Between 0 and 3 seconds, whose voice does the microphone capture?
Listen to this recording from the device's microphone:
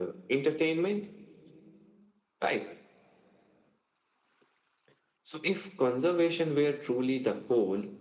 echo only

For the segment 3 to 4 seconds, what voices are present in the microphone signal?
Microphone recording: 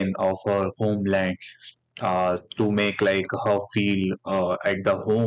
user only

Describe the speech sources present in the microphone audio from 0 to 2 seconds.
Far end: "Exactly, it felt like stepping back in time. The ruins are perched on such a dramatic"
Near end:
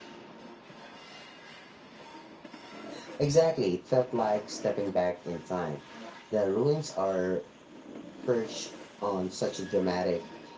neither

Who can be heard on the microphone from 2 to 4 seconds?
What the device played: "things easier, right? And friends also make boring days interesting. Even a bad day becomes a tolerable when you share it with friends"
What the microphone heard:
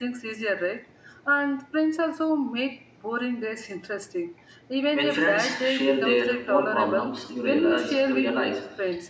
echo only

